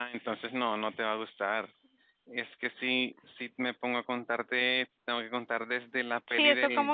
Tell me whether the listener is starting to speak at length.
Yes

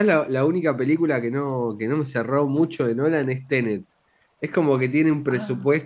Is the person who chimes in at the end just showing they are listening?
Yes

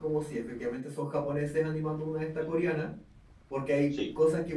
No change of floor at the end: Yes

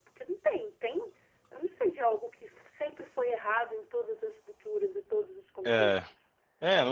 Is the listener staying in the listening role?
No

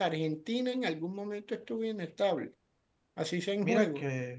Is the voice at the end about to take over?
Yes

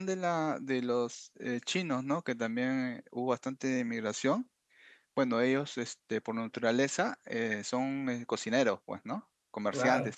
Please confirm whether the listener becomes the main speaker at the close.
No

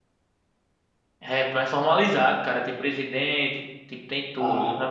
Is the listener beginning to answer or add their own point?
No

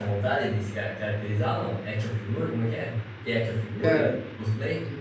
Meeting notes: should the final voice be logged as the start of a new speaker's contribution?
Yes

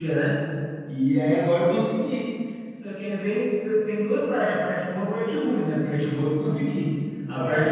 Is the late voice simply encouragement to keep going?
Yes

